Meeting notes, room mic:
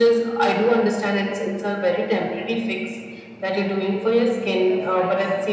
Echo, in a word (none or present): present